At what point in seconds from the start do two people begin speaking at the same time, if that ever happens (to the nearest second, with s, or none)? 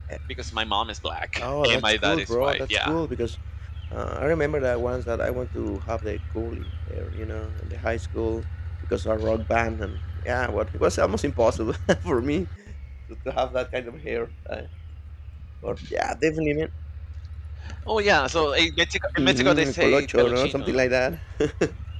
1 s